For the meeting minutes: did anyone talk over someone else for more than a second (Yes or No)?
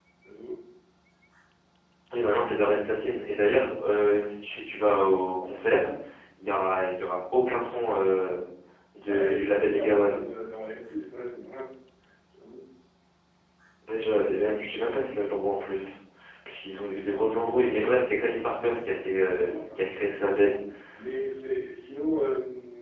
Yes